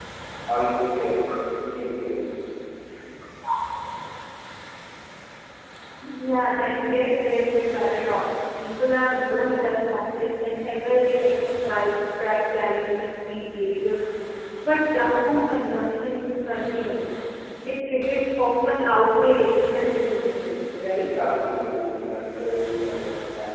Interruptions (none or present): none